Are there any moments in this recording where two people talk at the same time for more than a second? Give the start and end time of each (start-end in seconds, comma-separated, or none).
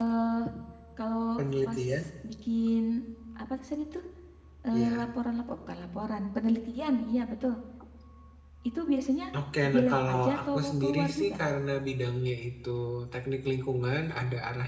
9.7-11.3